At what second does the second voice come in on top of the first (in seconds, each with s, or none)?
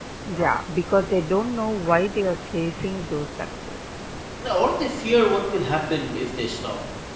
none